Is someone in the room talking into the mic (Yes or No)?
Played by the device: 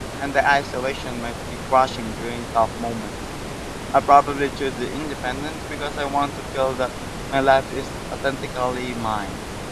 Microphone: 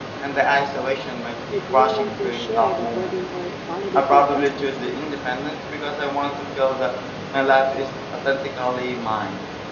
Yes